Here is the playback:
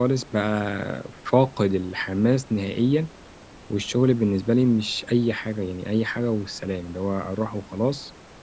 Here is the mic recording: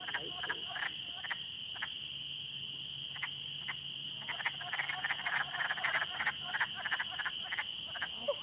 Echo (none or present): none